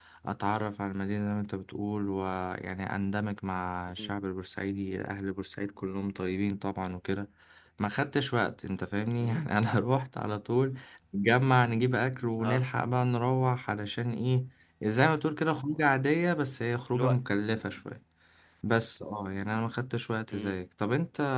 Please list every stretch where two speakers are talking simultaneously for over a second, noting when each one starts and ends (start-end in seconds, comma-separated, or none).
none